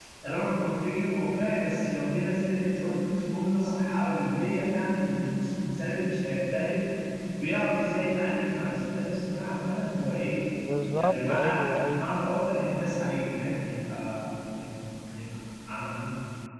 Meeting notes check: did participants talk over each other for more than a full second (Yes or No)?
Yes